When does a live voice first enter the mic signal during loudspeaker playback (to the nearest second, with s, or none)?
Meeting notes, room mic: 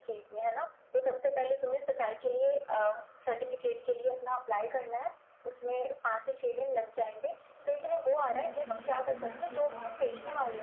8 s